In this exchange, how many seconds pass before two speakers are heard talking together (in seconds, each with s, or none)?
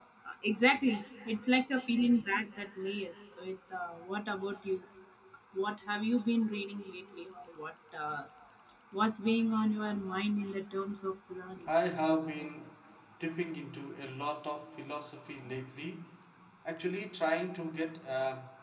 none